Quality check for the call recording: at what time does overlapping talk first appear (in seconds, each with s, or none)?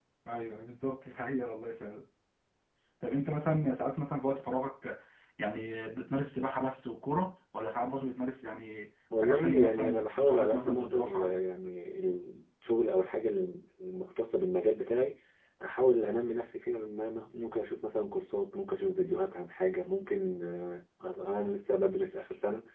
9.1 s